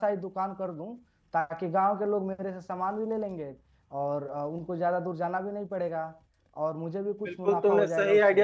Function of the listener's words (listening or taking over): taking over